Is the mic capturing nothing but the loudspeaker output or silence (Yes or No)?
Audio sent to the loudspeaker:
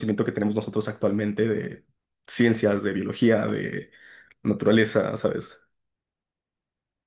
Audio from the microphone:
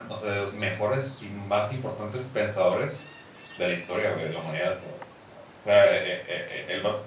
No